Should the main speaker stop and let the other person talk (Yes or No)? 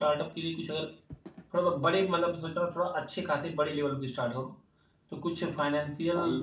No